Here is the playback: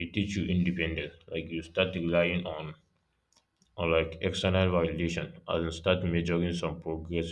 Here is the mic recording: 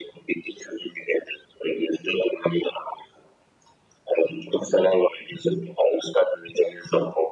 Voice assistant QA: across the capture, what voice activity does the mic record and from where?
echo only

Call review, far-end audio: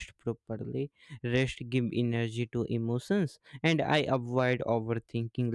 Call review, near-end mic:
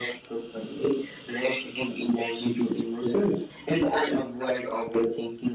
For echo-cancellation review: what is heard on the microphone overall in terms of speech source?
echo only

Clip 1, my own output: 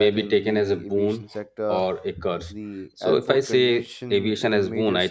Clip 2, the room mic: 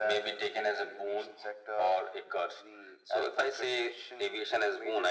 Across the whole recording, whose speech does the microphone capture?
echo only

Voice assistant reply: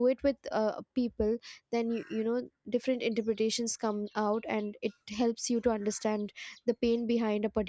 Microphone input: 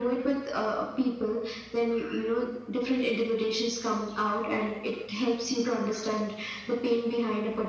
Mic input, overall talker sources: echo only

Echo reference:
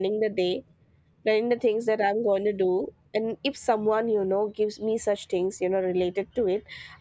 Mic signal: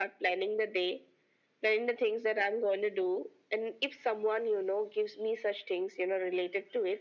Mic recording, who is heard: echo only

